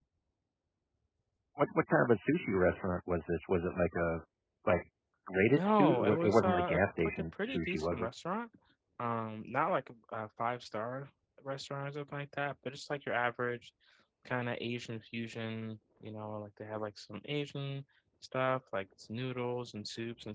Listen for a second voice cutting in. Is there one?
Yes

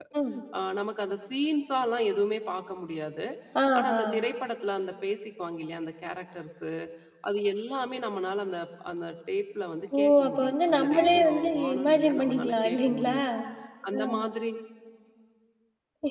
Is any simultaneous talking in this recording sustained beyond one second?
Yes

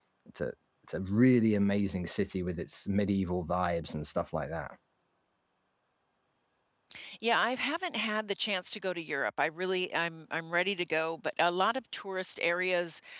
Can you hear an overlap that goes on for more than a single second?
No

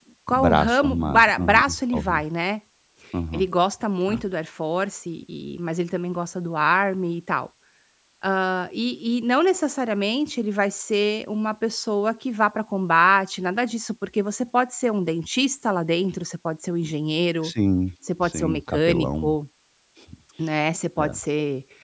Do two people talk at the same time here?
Yes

